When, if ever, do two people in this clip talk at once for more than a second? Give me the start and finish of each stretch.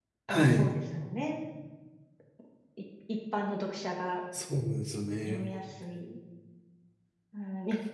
none

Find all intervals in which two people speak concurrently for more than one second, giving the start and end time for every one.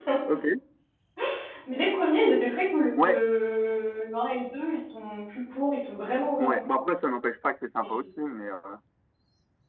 none

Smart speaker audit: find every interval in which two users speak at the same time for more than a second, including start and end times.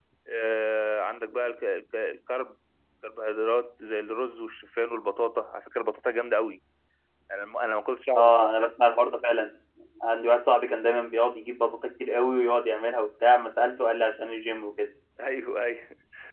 none

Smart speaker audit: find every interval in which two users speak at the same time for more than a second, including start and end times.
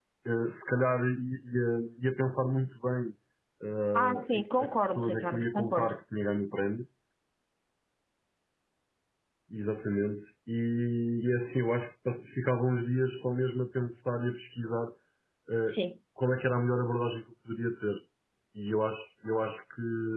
3.9-5.9

